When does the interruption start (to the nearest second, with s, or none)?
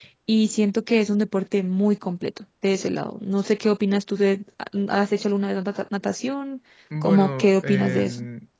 7 s